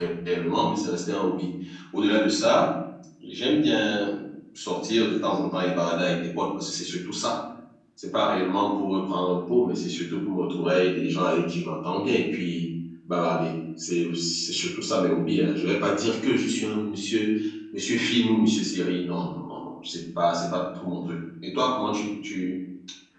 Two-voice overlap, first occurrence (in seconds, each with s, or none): none